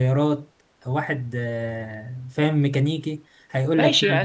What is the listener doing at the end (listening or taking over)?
taking over